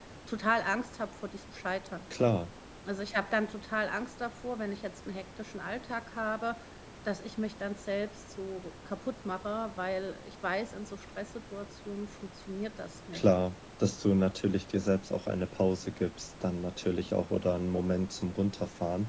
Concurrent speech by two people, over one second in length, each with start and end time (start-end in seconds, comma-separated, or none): none